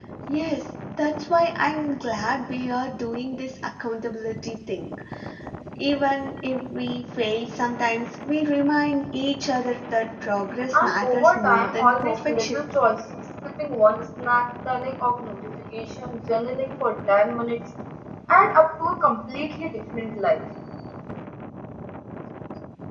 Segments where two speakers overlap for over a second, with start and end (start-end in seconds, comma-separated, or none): 10.7-12.6